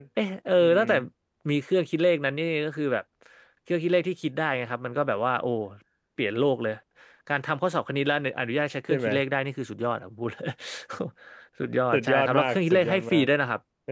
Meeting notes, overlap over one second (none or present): present